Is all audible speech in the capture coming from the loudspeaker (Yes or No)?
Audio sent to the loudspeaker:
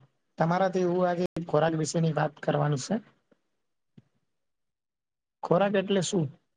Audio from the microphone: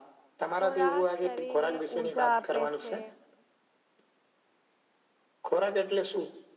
No